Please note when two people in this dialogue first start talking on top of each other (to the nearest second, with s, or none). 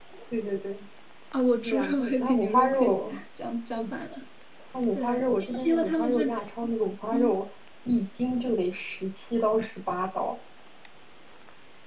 2 s